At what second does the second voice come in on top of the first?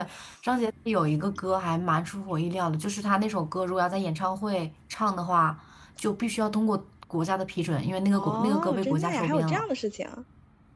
8.1 s

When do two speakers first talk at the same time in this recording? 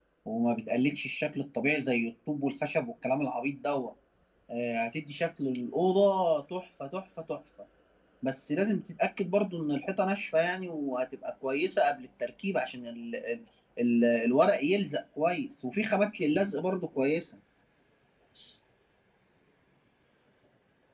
none

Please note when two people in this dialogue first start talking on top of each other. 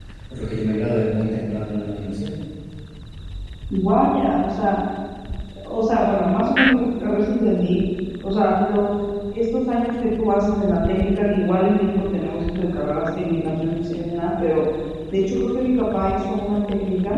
none

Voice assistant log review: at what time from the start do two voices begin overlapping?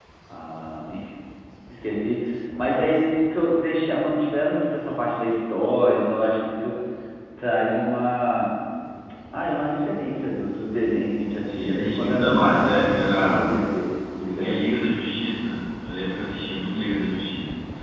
11.4 s

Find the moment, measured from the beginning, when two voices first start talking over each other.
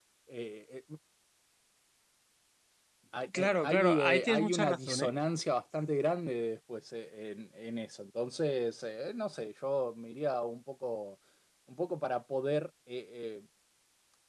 3.4 s

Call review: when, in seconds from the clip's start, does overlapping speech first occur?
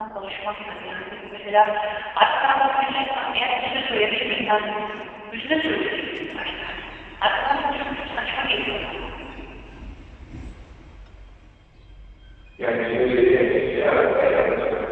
none

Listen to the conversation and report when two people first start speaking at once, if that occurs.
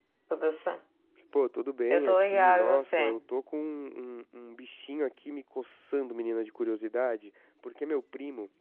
1.9 s

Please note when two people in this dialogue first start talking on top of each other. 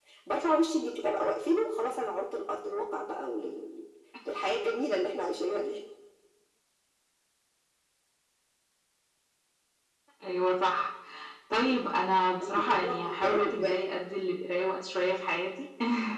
12.4 s

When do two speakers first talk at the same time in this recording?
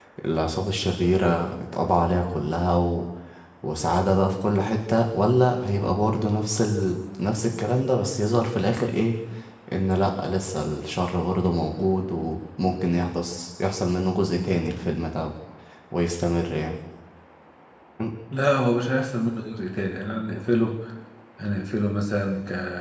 none

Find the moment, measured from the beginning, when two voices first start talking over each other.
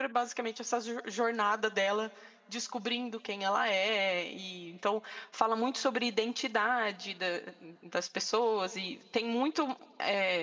none

